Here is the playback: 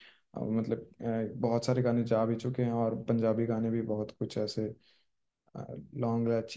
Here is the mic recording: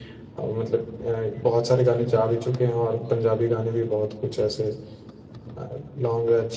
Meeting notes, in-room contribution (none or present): none